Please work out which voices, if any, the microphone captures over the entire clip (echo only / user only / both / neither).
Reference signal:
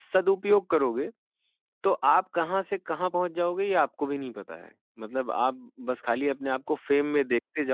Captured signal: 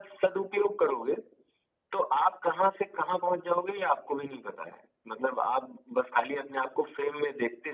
echo only